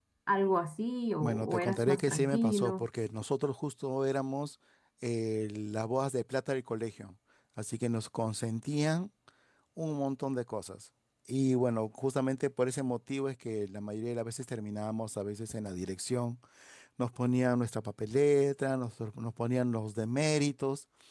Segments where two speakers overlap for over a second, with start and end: 1.2-2.9

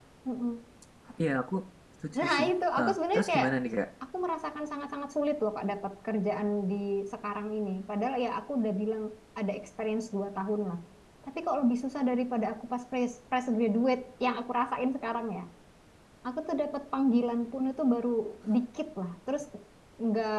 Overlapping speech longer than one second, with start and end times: 2.2-3.5

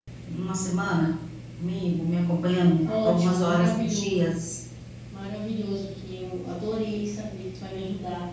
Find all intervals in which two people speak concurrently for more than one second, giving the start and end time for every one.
2.8-4.2

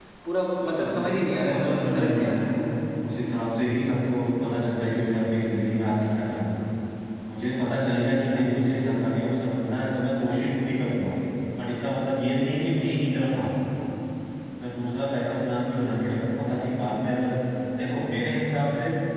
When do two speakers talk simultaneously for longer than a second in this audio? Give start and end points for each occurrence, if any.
0.6-2.3

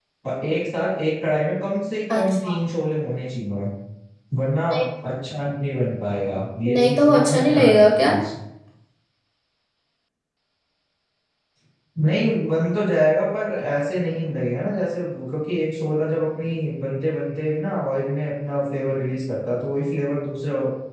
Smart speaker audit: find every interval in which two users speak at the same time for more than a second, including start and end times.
6.7-8.1

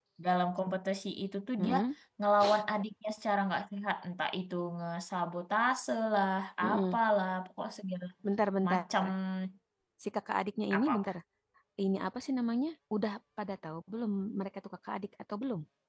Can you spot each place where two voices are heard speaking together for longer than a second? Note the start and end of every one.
none

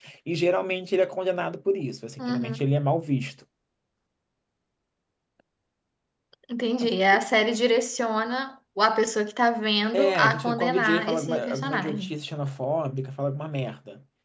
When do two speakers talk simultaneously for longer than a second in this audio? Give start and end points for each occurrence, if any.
9.9-12.1

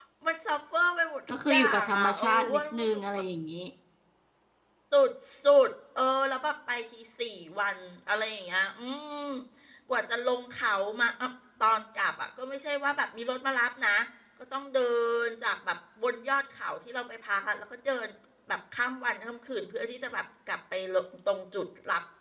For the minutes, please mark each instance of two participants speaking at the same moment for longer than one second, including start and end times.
1.3-3.2

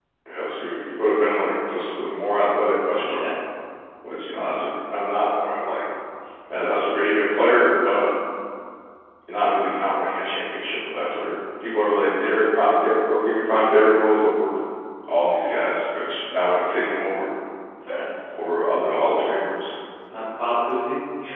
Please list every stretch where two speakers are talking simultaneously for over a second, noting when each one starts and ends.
none

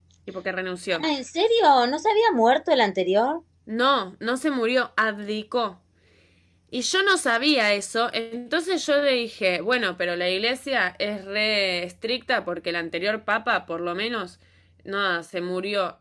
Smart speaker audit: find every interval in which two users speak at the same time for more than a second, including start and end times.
none

